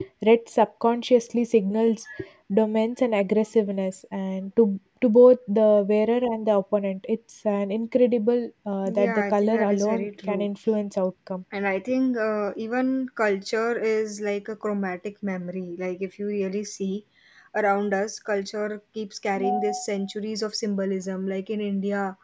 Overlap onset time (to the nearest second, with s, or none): 9 s